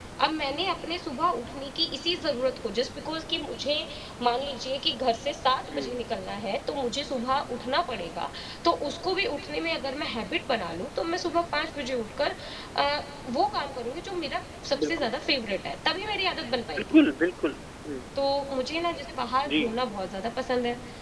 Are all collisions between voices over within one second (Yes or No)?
Yes